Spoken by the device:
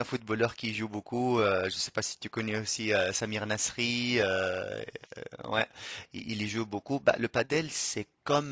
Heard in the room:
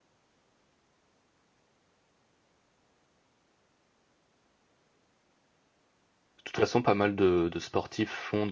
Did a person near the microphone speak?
Yes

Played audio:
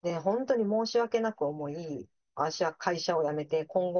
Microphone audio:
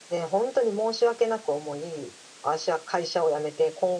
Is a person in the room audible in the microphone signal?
No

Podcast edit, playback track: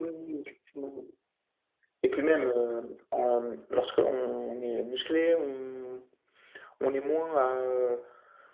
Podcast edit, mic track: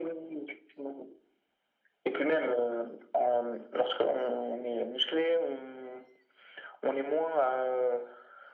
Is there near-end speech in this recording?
No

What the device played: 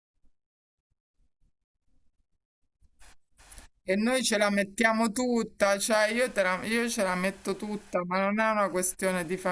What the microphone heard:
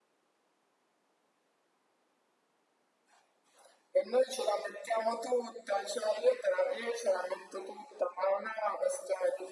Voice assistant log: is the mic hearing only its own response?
Yes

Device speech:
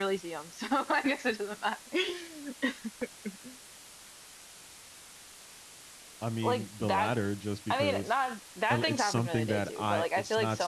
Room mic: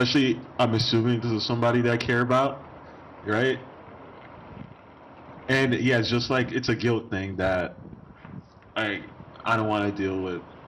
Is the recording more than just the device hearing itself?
Yes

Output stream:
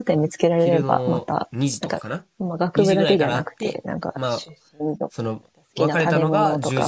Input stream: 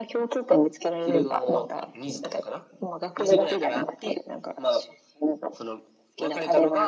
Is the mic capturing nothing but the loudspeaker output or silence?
Yes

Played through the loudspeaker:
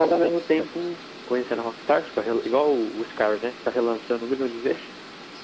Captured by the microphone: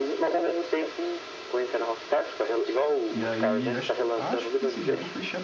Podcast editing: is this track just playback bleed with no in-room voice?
No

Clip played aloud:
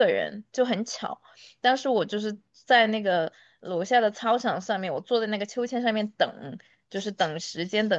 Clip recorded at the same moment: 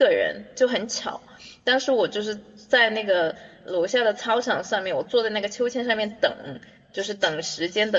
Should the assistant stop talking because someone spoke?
No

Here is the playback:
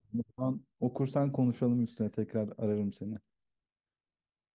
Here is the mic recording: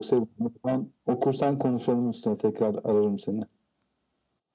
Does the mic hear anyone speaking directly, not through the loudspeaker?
No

